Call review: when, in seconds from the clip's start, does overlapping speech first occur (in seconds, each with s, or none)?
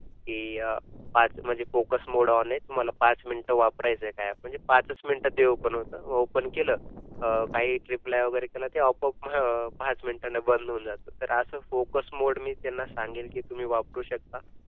none